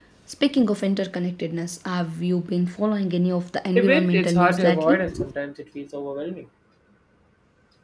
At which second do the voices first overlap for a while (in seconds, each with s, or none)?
3.8 s